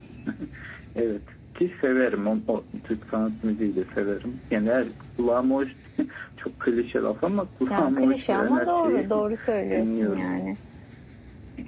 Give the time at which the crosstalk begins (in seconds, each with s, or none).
7.7 s